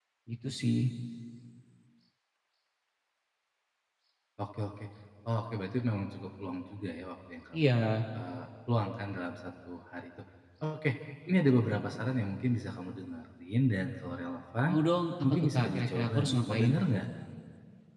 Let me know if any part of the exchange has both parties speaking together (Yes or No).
Yes